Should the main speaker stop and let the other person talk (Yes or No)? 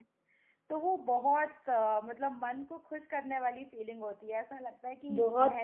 Yes